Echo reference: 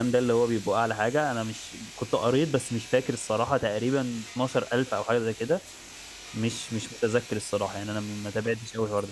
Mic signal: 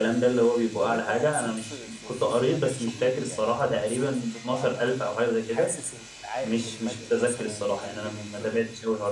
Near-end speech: present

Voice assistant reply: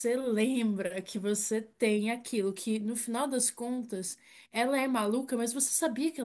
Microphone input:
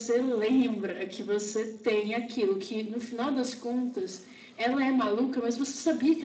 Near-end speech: none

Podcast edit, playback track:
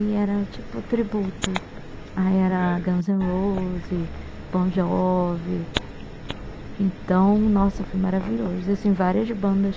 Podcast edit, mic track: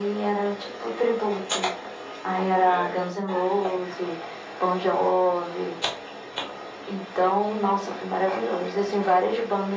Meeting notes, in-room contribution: none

